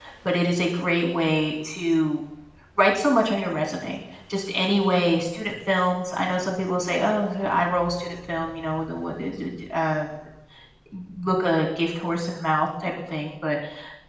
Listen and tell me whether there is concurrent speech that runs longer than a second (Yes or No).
No